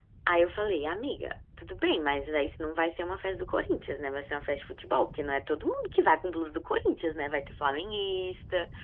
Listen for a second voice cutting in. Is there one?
No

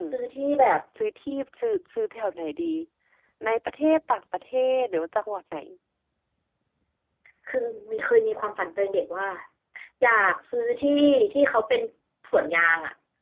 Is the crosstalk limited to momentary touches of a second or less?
Yes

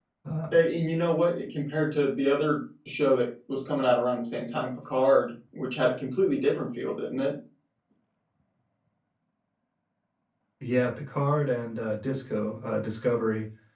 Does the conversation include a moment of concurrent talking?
No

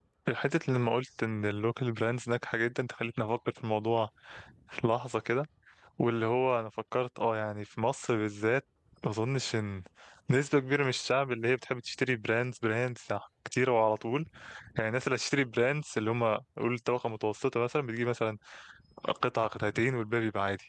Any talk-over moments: No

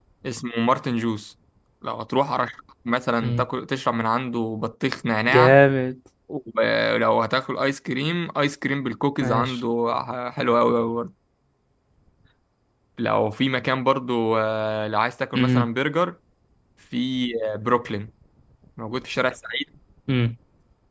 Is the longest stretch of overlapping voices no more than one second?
Yes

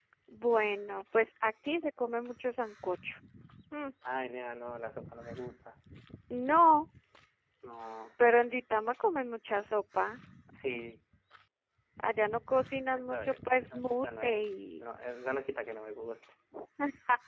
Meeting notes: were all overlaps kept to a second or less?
No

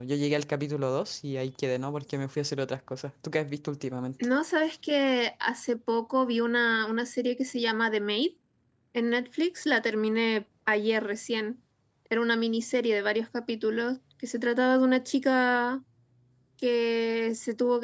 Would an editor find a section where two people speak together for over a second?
No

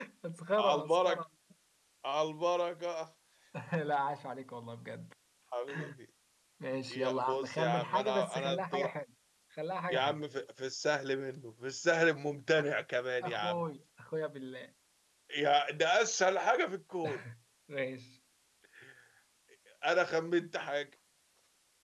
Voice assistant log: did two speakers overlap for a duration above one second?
Yes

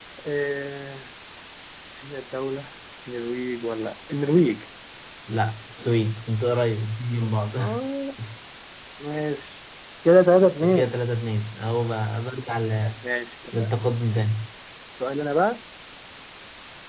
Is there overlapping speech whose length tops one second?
No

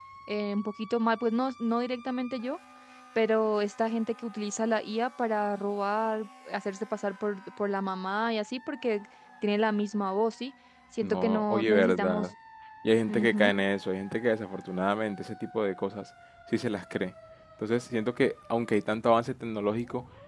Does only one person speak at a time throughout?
No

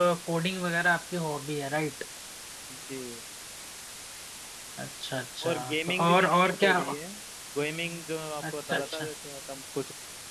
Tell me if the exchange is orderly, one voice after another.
No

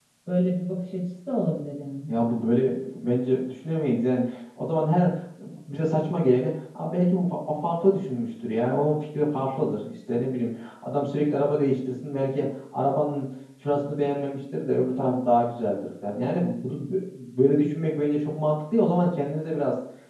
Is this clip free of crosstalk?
Yes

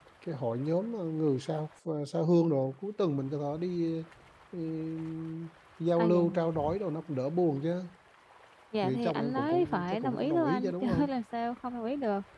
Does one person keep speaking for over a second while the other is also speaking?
Yes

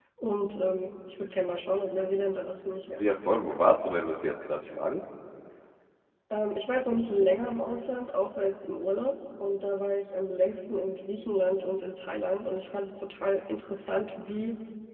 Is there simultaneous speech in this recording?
No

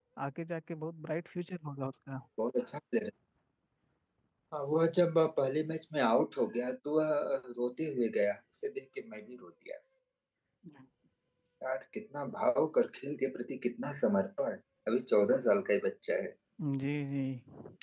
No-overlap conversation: Yes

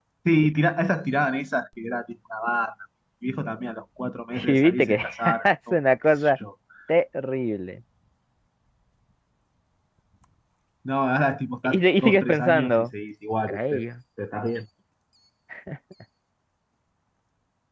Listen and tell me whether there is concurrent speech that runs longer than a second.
Yes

